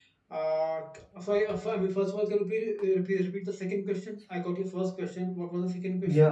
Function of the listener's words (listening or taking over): taking over